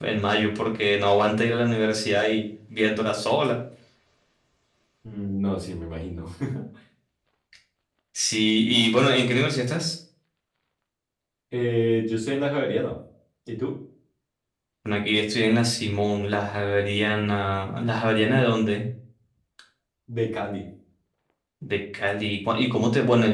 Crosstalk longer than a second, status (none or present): none